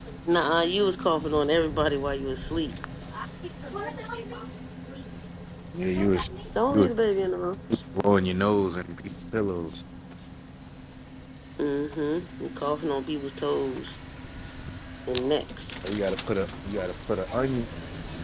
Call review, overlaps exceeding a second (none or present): none